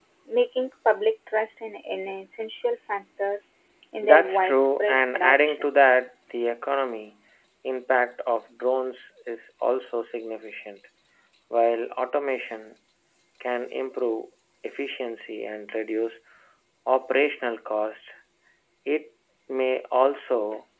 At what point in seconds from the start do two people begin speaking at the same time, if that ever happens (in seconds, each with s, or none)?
4.0 s